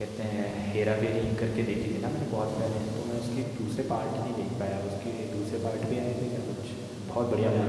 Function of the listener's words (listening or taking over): taking over